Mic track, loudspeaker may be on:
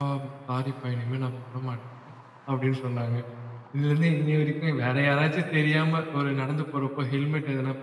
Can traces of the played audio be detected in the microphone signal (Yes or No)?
No